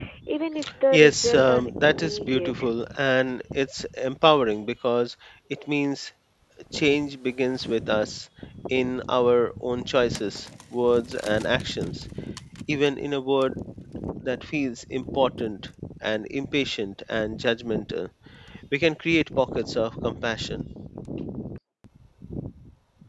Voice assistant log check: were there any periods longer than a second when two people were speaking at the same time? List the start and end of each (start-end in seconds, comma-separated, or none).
0.9-2.7